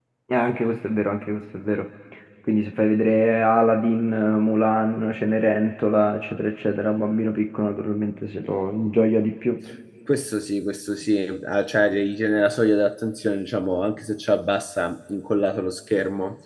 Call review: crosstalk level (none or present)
none